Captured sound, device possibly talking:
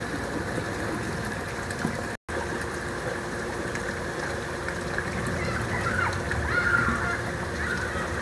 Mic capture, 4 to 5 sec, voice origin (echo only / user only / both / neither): neither